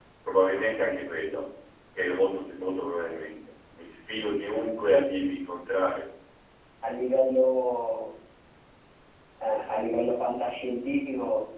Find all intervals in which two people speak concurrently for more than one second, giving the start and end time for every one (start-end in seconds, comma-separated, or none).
none